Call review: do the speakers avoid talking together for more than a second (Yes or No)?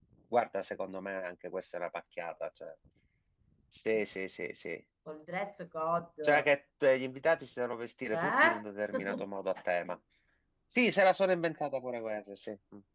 Yes